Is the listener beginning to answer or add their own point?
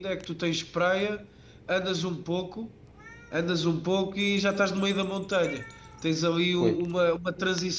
No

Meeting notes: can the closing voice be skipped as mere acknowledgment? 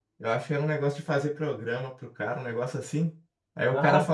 Yes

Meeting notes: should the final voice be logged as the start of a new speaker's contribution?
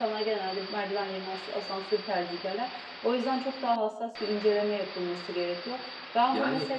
No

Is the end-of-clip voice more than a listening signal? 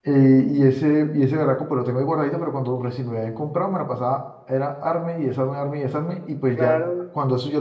No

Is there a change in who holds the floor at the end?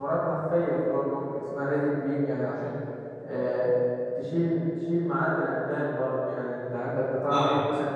No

